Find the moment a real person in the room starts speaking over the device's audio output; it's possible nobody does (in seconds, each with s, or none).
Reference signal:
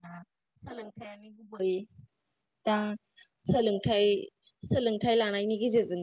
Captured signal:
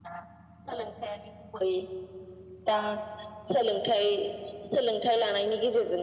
none